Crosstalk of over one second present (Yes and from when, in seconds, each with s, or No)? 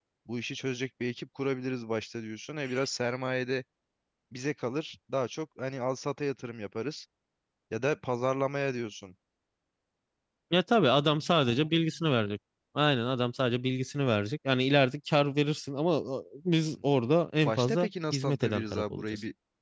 Yes, from 17.4 s